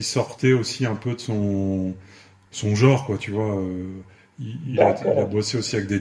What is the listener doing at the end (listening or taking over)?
listening